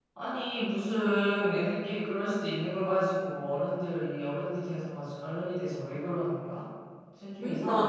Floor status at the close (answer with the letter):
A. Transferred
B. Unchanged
A